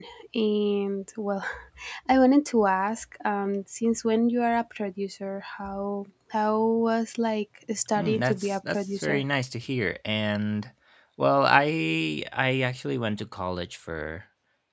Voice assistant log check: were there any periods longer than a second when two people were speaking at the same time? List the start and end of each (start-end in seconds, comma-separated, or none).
8.0-9.2